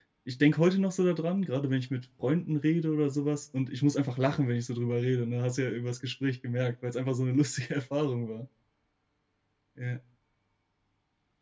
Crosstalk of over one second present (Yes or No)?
No